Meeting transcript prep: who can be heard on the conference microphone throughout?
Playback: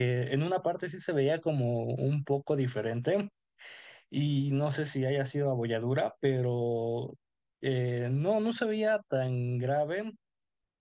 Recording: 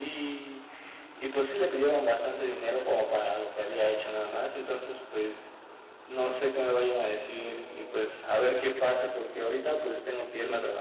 user only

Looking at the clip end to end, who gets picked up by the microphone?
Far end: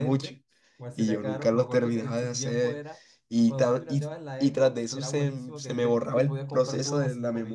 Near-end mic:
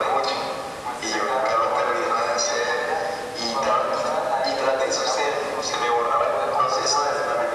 echo only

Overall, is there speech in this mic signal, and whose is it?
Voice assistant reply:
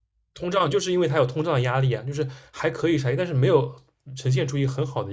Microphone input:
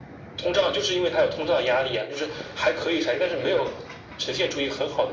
echo only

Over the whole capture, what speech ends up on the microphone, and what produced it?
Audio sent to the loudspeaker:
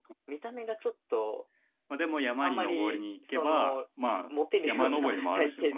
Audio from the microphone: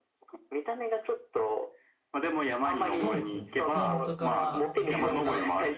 both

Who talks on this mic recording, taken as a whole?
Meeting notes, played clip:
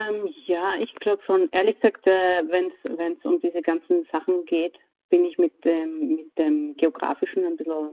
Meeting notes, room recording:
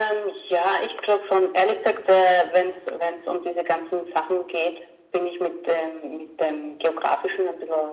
echo only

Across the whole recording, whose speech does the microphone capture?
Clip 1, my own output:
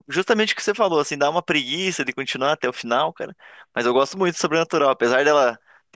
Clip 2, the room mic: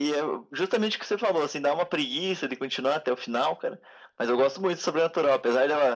echo only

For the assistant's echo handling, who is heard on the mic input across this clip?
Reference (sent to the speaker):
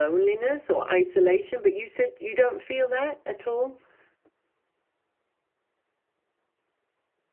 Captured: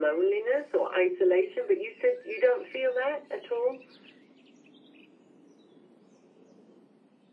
echo only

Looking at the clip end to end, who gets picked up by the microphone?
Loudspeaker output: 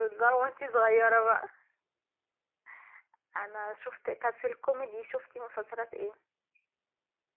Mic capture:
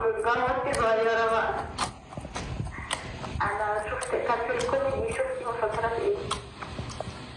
echo only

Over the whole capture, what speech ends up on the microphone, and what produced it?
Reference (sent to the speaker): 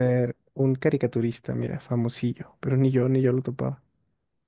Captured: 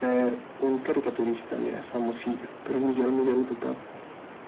echo only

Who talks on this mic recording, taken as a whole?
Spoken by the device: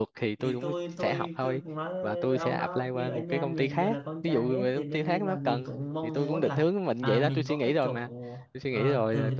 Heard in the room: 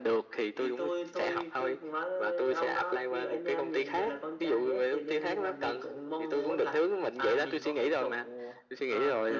echo only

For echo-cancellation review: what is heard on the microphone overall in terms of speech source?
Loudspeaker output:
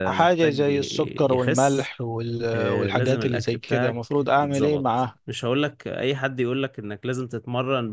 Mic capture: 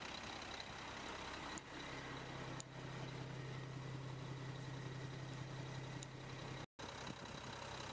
neither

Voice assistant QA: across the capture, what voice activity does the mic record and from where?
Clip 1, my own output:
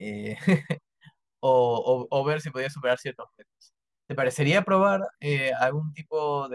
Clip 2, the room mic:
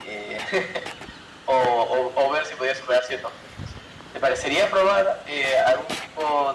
echo only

